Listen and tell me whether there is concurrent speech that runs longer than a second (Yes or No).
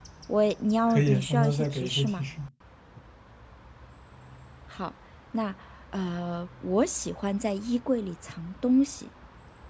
Yes